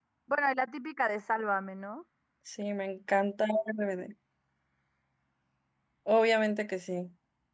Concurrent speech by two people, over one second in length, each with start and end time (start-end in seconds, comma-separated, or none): none